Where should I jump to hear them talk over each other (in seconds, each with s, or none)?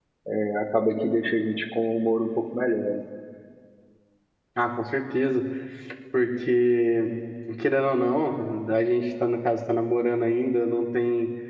none